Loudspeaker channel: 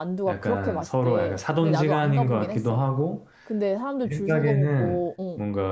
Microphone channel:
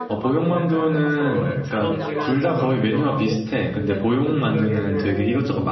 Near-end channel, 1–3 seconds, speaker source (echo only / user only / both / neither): both